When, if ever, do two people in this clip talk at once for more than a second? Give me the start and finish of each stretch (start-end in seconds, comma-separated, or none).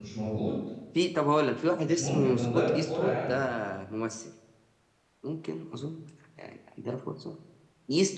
1.8-3.4